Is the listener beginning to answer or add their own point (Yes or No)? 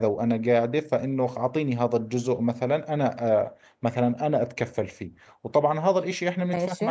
No